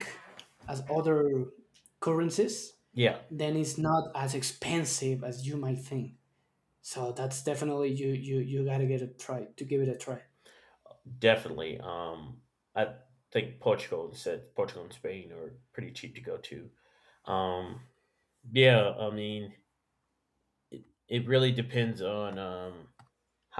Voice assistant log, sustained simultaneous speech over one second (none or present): none